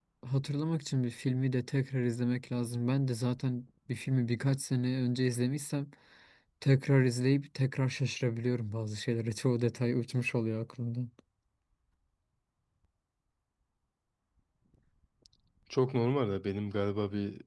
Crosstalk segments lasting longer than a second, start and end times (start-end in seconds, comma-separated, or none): none